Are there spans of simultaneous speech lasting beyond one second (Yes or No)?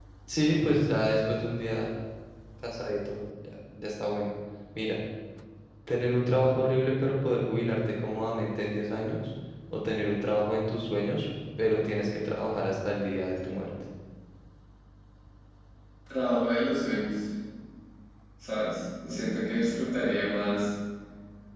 No